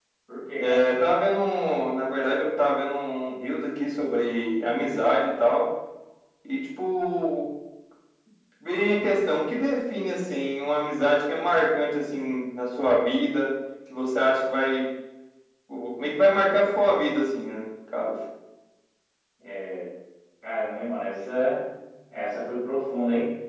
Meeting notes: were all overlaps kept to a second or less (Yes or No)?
Yes